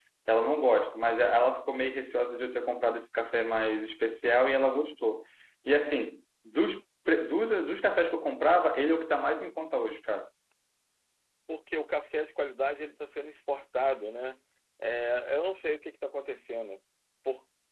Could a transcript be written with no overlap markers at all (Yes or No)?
Yes